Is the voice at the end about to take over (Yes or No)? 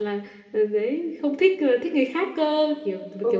Yes